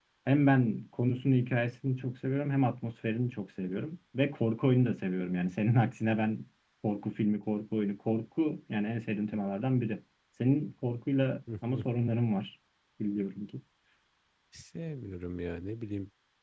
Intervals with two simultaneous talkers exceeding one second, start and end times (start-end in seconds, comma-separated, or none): none